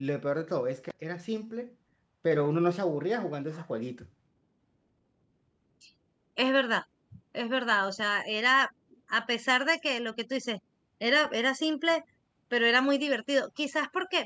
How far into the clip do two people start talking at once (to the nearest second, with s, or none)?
none